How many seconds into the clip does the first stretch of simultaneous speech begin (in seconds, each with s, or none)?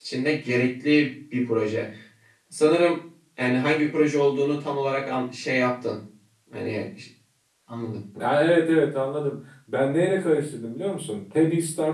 none